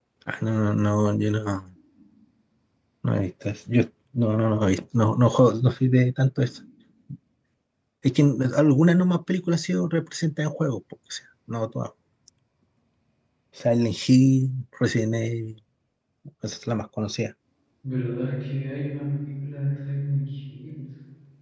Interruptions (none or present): none